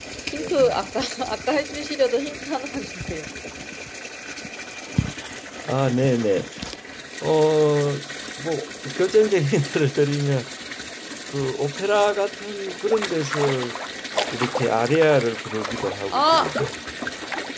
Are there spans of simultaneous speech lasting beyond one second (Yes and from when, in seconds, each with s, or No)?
No